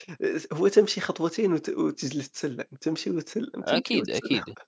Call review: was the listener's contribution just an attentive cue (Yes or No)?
No